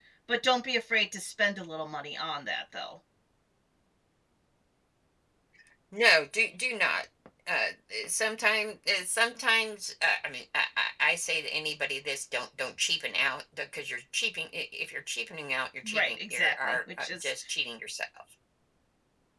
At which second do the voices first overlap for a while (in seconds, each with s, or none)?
15.9 s